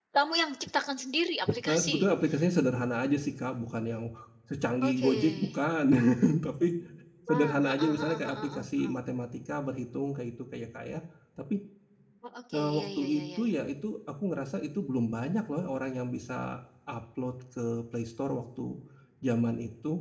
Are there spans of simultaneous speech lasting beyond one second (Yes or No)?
Yes